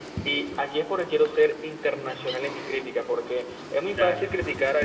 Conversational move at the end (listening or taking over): listening